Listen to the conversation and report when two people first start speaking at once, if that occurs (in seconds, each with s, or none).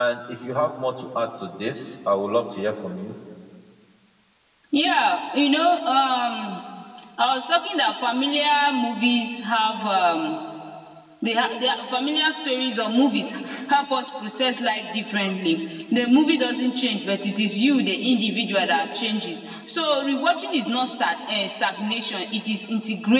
none